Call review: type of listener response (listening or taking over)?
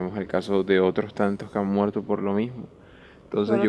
taking over